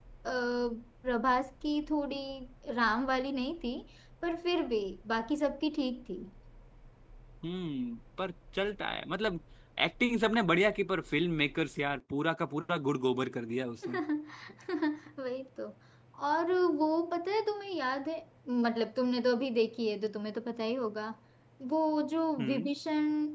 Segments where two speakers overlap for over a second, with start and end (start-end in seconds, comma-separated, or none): none